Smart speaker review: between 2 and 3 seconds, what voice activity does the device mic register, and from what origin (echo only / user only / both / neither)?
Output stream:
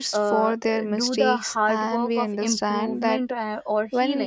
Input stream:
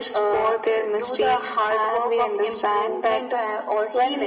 echo only